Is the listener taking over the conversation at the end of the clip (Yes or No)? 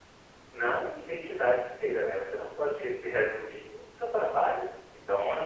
No